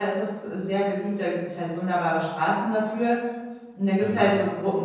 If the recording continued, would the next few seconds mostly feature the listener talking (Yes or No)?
No